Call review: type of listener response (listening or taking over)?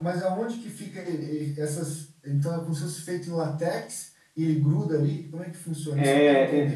taking over